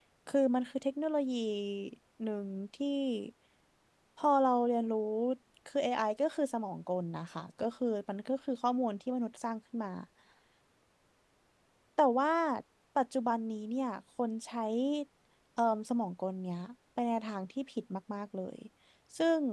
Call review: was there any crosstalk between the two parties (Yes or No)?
No